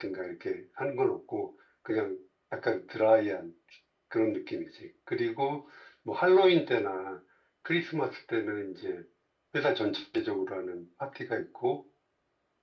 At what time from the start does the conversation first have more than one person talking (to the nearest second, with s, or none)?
none